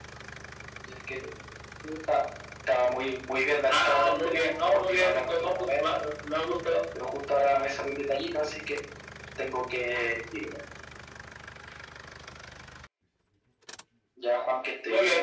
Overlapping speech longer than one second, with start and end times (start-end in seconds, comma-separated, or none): 3.7-6.1